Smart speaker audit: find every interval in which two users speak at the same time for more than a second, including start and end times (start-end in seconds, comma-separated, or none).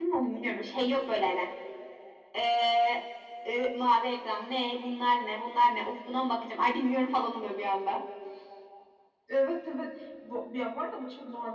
none